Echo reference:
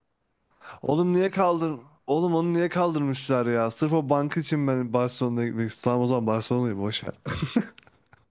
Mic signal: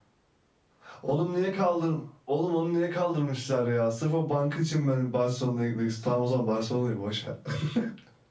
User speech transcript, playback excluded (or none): none